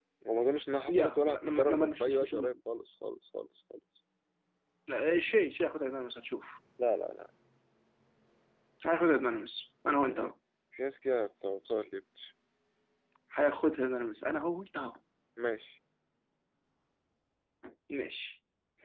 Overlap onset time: 1 s

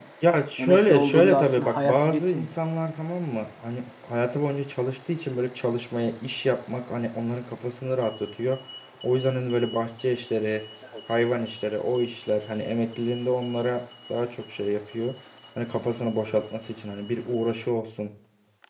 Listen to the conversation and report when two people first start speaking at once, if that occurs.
1 s

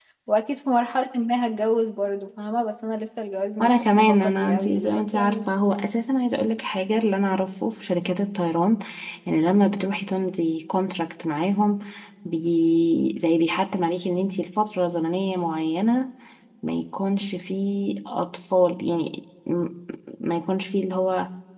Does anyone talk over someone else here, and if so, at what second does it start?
4 s

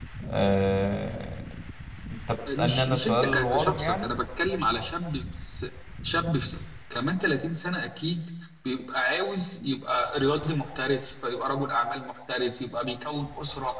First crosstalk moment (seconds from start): 2 s

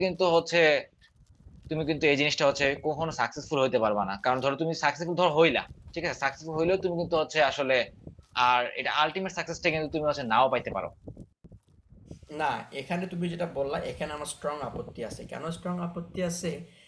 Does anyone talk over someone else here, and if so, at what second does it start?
none

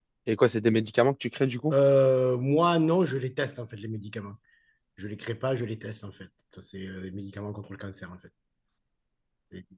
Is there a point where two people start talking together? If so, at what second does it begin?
none

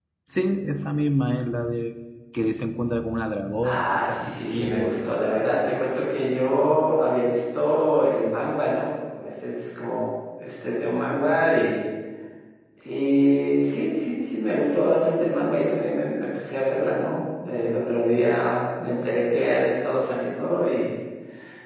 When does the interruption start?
4 s

